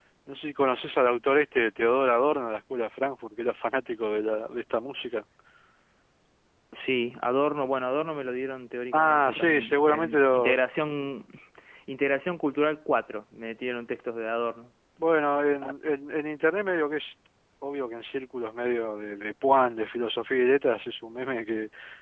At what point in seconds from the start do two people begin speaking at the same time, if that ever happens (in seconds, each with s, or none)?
8.9 s